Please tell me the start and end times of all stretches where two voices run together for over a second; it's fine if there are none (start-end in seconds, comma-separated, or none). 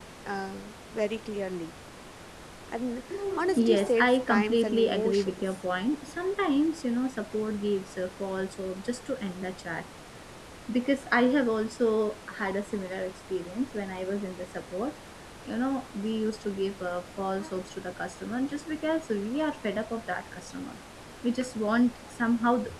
3.6-5.5